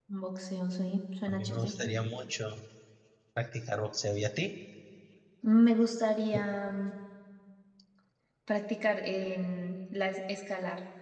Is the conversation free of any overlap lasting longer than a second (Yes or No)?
Yes